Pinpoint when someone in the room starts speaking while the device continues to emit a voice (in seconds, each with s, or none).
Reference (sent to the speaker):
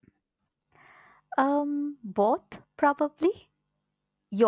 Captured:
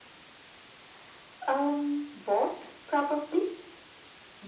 none